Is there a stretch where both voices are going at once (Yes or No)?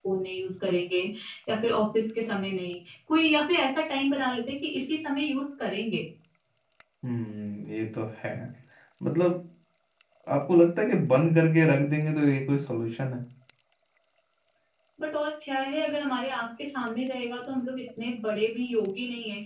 No